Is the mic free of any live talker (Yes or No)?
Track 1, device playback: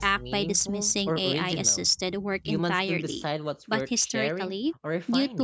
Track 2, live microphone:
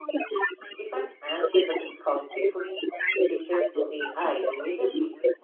No